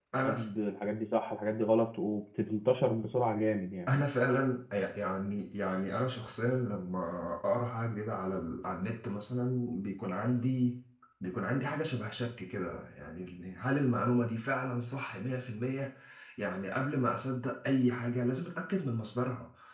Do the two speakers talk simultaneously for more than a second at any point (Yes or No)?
No